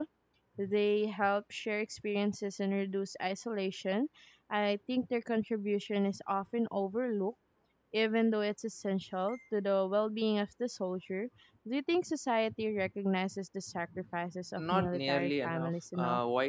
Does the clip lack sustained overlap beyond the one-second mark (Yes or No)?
No